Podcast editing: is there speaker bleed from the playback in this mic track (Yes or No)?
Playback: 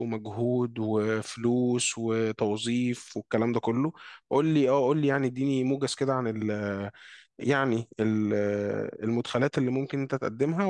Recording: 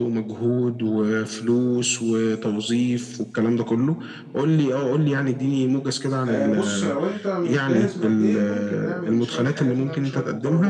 Yes